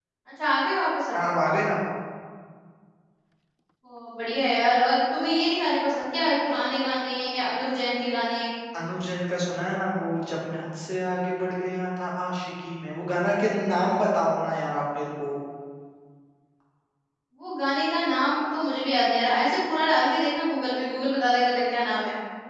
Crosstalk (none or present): none